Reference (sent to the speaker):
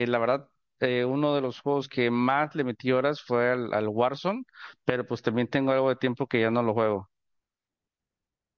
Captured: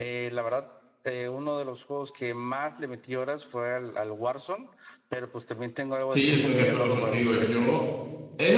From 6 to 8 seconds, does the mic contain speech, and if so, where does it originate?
both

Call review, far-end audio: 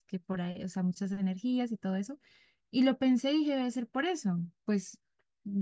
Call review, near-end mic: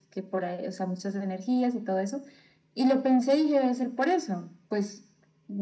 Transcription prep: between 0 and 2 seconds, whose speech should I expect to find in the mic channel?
echo only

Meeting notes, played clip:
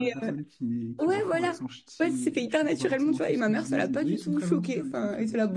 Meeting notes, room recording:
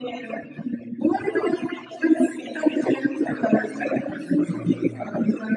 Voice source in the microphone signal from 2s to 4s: echo only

